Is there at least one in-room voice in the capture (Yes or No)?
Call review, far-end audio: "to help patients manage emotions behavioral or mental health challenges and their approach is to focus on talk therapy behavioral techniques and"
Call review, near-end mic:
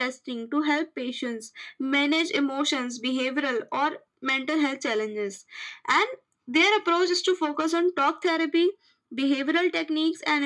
No